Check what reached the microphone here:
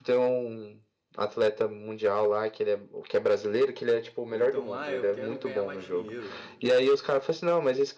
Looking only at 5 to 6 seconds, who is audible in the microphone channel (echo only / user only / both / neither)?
both